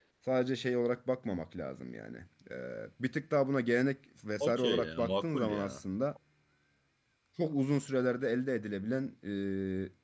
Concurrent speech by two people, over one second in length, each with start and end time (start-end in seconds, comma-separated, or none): 4.4-5.8